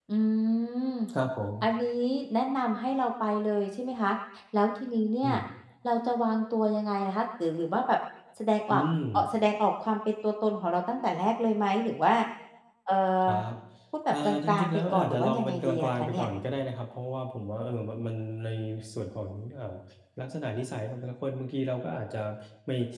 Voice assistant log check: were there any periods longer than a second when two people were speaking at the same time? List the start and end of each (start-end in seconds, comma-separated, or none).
14.1-16.2